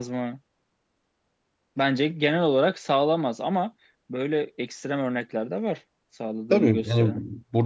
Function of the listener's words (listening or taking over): taking over